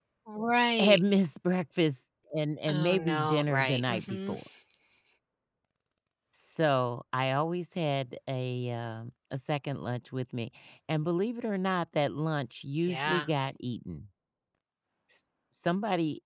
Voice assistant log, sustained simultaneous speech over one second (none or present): present